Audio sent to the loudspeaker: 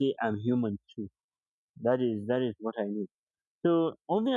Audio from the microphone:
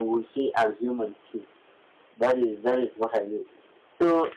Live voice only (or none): none